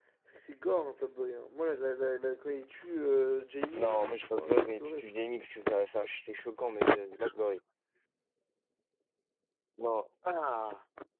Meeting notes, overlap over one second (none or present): present